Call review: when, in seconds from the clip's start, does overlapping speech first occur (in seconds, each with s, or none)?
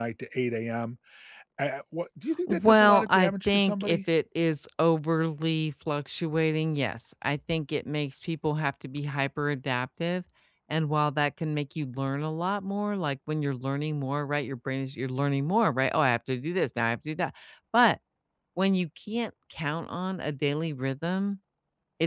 2.5 s